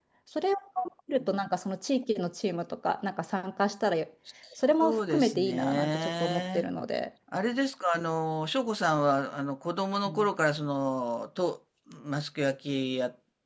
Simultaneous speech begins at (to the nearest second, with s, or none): 5 s